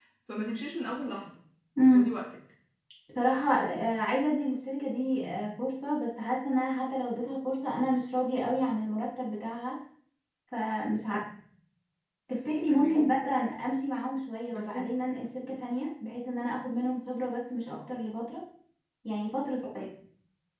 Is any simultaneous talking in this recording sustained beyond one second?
No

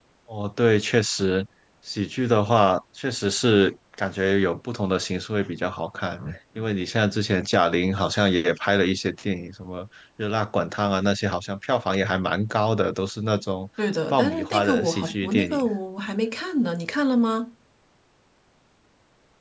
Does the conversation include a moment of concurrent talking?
Yes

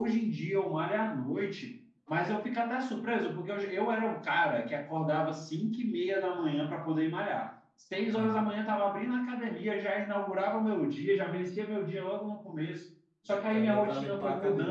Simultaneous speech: Yes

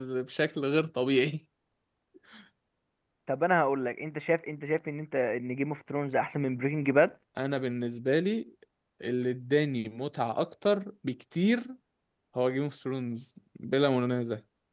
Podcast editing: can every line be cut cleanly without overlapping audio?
Yes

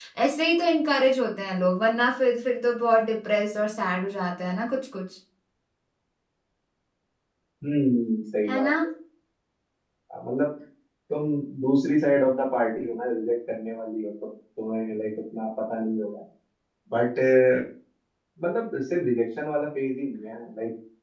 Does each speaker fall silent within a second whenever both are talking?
Yes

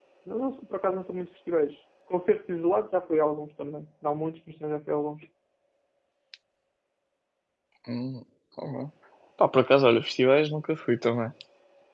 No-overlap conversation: Yes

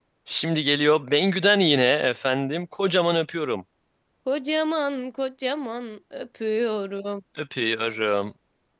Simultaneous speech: No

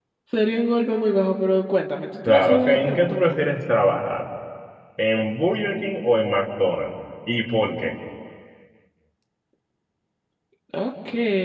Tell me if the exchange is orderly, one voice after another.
No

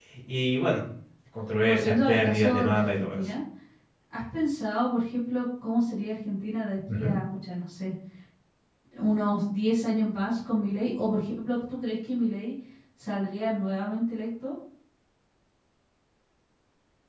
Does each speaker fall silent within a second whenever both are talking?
No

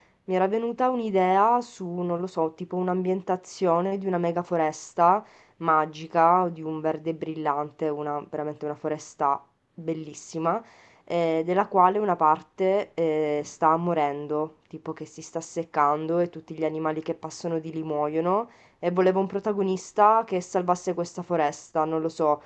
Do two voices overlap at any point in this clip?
No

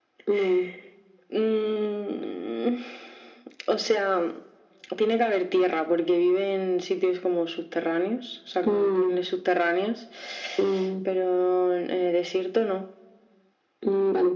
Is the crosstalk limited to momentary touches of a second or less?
Yes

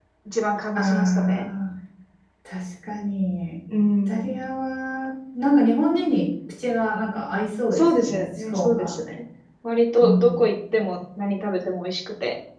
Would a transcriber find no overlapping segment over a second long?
No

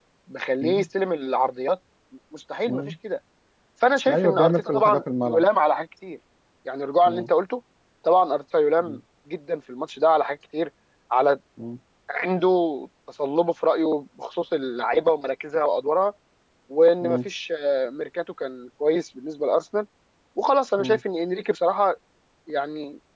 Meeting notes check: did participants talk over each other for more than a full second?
Yes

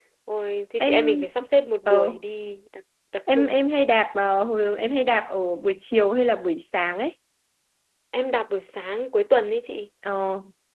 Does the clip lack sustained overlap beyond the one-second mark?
Yes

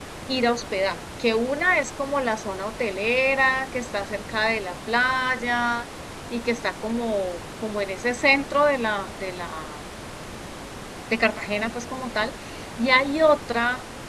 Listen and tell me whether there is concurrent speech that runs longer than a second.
No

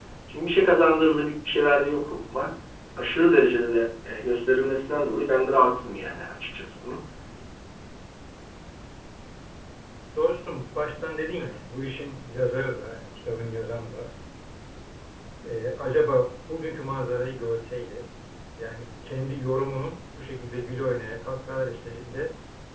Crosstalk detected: No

